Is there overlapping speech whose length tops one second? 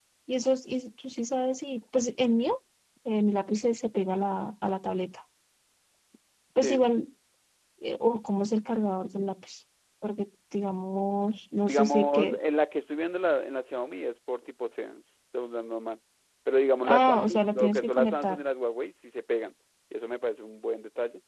Yes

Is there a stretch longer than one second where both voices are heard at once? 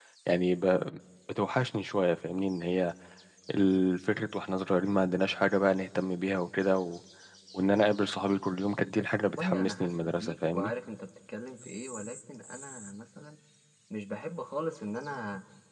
Yes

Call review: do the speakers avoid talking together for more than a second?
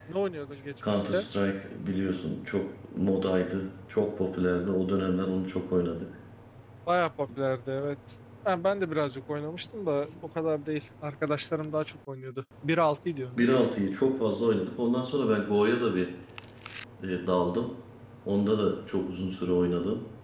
Yes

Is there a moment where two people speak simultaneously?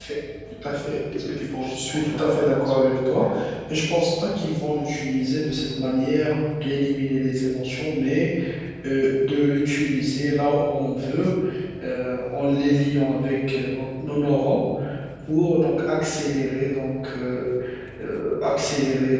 Yes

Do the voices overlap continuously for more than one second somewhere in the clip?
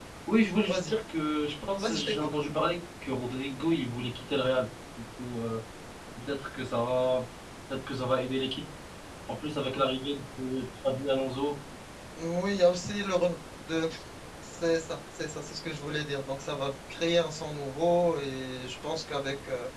No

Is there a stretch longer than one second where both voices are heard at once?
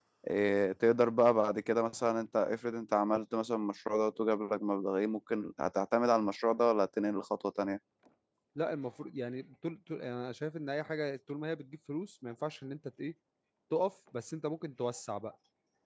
No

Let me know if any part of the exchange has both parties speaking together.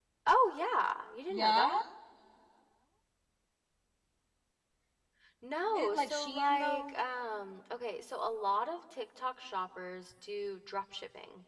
Yes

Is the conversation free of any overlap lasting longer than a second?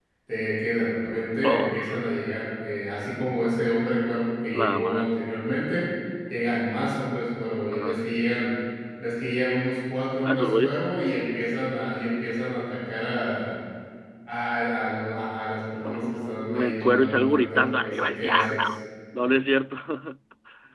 No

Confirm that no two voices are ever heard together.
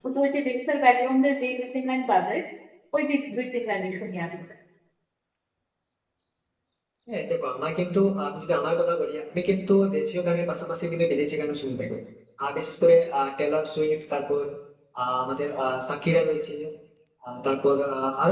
Yes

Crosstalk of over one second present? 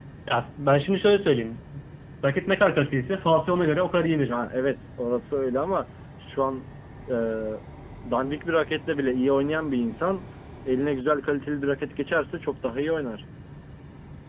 No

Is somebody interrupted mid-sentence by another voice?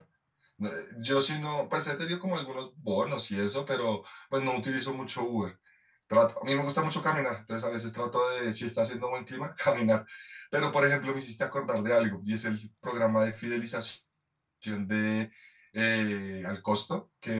No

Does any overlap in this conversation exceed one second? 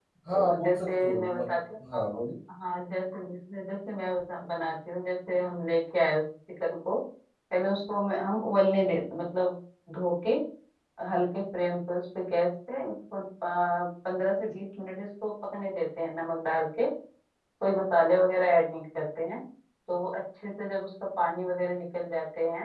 Yes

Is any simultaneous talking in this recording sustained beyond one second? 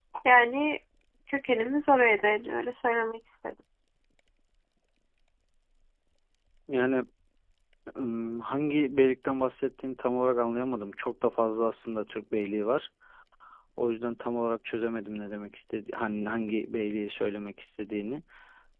No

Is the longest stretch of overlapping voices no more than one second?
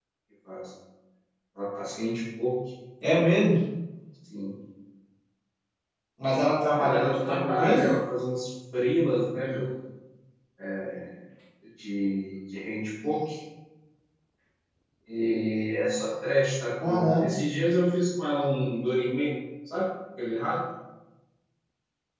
No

